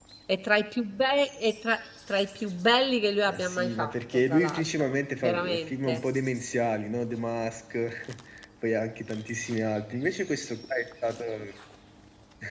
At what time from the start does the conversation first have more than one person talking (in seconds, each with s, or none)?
3.3 s